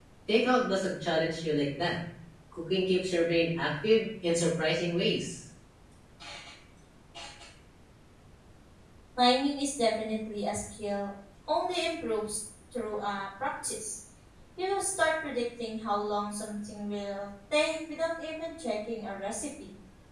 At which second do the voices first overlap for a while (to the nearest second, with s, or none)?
none